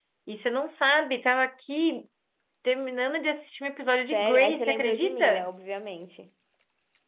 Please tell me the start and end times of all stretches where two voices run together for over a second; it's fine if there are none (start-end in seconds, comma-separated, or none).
4.1-5.5